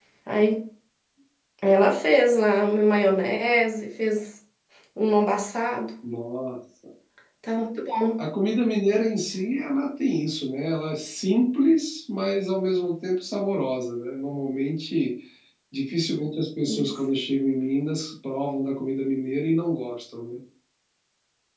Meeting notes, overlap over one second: none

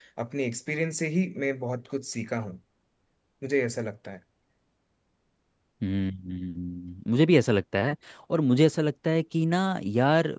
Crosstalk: none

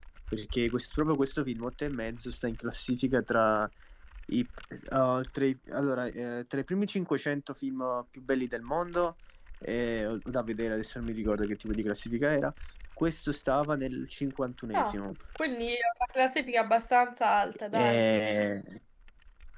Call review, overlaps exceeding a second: none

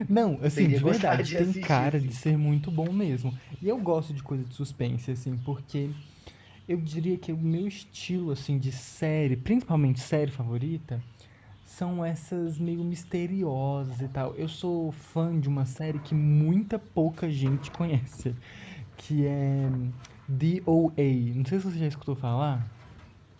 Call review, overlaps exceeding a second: present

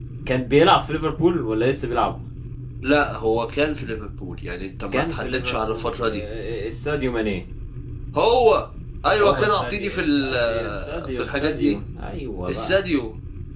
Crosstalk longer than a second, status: present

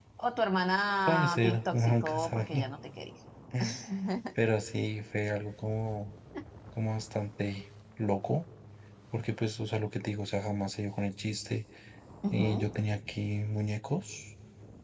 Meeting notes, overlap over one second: present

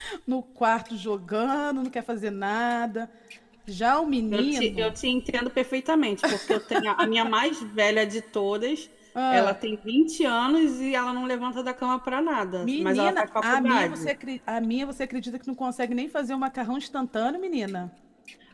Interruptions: present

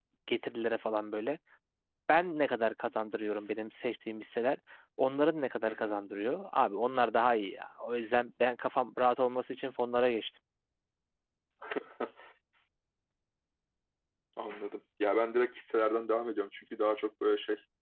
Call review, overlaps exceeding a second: none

